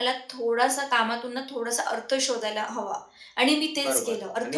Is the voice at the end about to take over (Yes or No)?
Yes